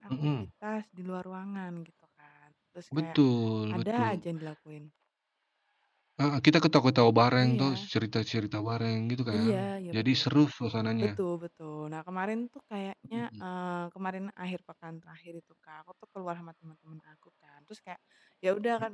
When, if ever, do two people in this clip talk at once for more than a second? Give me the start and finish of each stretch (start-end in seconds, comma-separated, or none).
none